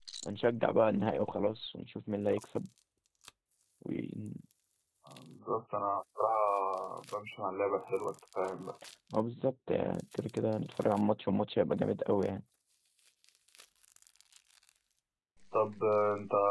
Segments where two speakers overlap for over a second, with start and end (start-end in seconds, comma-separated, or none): none